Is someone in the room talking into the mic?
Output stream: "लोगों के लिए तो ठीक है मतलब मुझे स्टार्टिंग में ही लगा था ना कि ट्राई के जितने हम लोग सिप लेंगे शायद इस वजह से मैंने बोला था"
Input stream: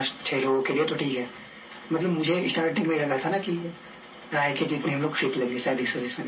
No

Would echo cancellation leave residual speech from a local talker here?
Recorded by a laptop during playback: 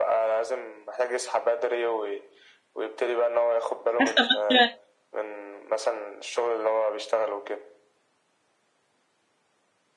Yes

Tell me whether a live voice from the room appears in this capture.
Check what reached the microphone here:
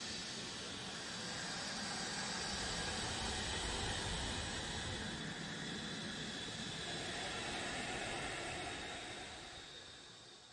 No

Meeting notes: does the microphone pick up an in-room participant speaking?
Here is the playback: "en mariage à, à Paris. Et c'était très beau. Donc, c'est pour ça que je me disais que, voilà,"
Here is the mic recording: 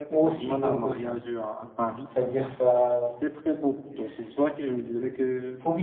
Yes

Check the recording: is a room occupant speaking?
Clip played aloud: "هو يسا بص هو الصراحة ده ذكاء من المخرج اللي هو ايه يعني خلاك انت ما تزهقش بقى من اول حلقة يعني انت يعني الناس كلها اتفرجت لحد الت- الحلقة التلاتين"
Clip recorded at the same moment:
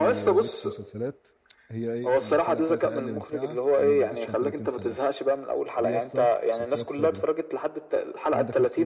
Yes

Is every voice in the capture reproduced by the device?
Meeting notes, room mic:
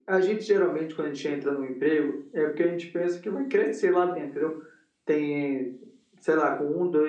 Yes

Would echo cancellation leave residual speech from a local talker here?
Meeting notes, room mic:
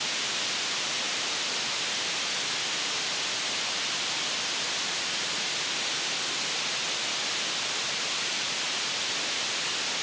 No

